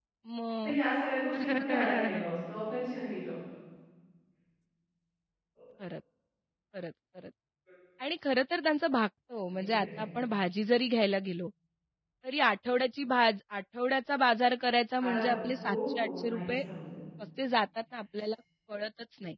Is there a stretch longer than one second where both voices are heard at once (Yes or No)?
Yes